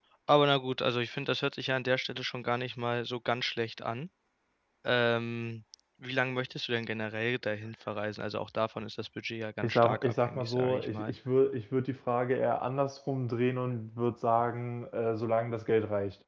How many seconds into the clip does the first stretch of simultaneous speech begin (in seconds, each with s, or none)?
9.6 s